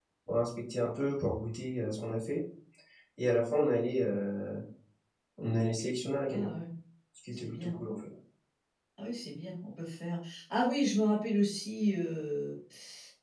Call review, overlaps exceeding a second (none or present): none